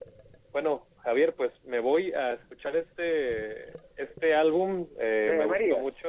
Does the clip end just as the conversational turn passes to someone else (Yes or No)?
No